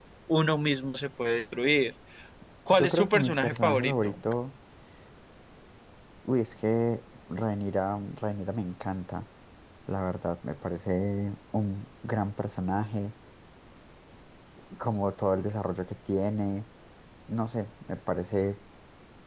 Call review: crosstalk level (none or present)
present